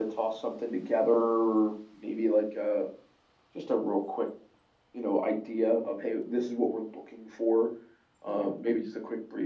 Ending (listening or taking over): listening